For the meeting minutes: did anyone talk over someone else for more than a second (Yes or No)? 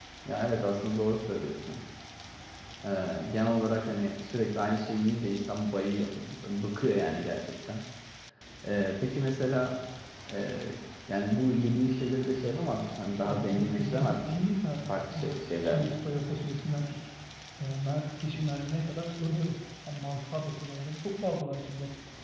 Yes